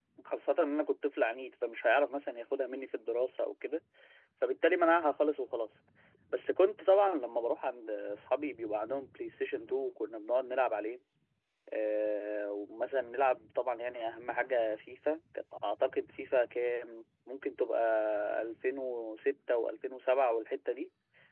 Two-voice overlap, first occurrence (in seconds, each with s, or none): none